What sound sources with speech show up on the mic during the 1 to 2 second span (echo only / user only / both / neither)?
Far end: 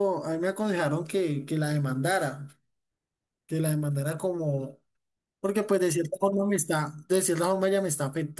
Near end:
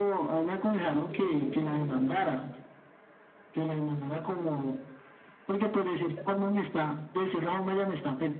both